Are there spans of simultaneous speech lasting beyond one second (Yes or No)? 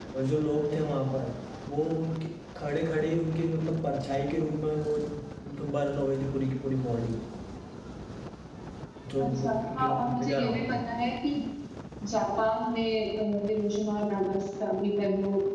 Yes